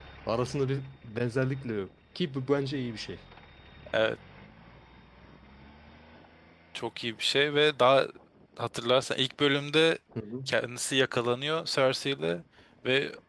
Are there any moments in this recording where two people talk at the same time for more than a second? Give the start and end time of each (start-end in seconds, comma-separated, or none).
none